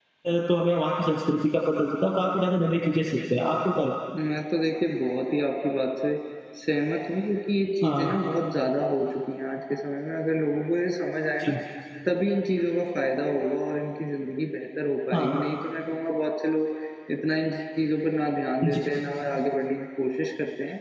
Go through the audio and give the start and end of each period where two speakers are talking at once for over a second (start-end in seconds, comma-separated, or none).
none